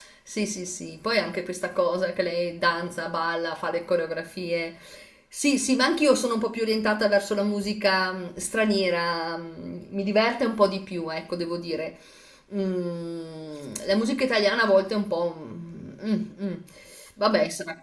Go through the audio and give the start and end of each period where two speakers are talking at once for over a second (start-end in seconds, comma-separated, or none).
none